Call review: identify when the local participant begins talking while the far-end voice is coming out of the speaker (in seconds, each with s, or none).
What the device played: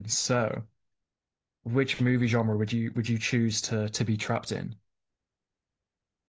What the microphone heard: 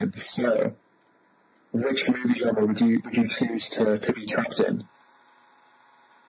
none